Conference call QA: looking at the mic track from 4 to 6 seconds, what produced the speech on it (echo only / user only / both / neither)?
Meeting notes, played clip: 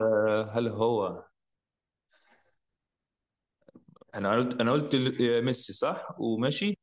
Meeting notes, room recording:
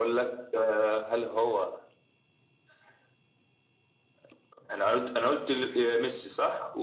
echo only